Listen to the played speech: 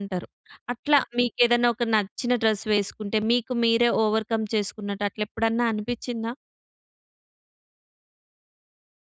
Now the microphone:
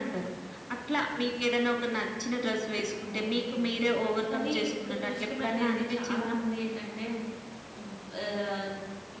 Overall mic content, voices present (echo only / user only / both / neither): both